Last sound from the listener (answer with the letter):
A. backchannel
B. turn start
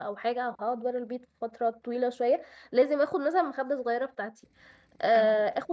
A